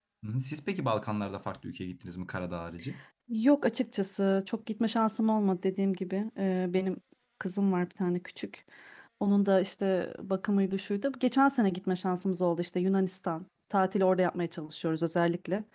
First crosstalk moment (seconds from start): none

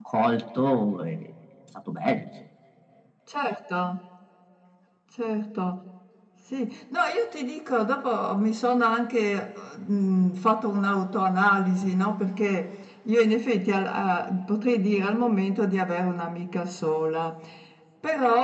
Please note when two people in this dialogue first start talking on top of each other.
none

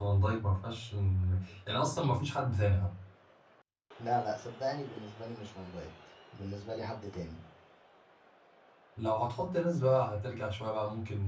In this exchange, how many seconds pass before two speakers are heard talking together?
none

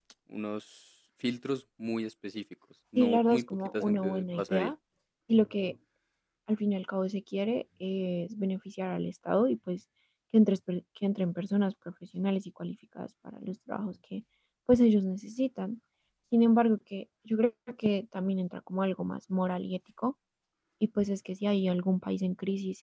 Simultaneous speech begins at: 3.0 s

